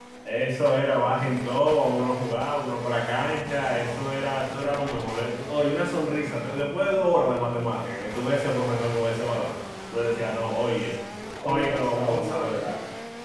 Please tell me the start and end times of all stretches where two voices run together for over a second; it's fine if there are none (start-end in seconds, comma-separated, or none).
11.4-12.8